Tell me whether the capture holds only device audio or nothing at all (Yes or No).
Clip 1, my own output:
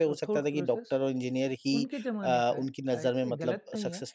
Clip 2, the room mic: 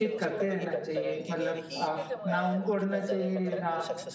No